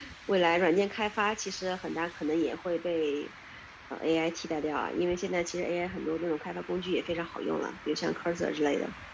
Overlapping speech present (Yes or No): No